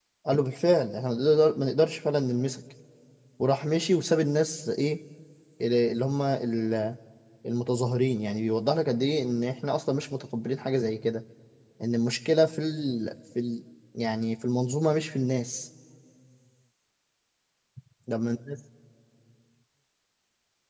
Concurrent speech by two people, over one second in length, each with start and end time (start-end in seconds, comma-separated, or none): none